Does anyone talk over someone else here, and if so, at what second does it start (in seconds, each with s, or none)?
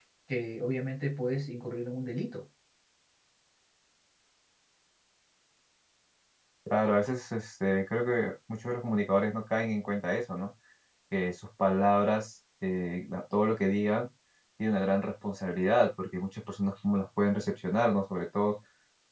none